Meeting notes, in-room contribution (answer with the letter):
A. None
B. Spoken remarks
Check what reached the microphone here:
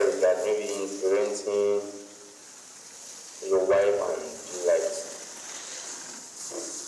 A